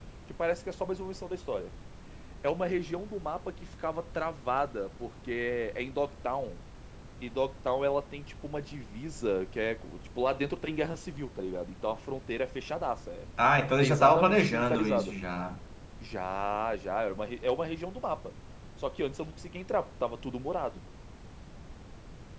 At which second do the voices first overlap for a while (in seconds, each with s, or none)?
13.8 s